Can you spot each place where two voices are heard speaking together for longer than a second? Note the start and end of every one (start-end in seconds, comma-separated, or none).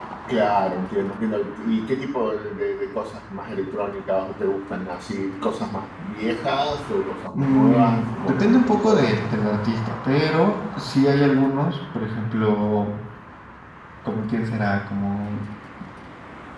7.3-9.2